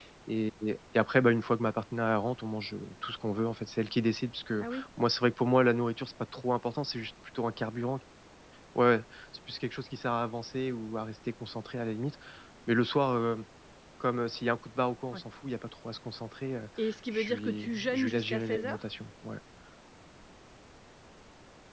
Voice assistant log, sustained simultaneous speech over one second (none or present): present